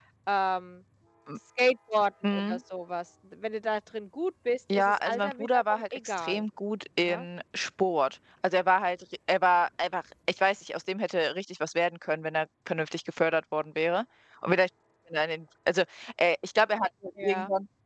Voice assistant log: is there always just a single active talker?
No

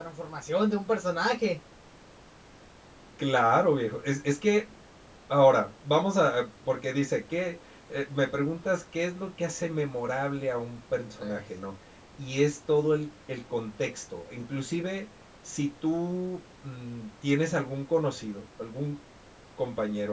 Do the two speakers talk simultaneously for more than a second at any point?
No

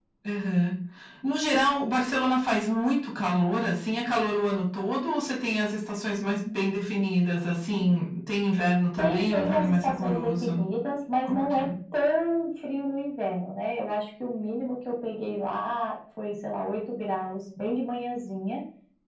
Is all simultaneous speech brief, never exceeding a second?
No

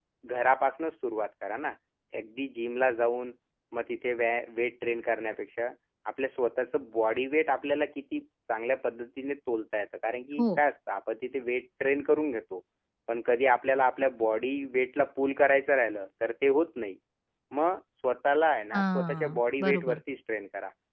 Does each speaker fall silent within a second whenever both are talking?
No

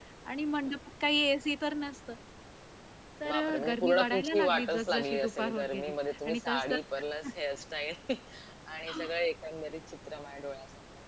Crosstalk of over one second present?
Yes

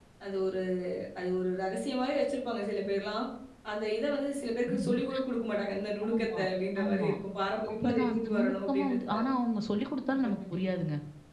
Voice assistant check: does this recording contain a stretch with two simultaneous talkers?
Yes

